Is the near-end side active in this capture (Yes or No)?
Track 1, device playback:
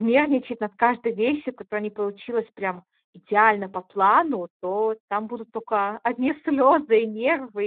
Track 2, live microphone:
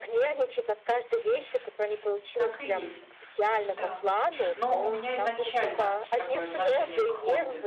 Yes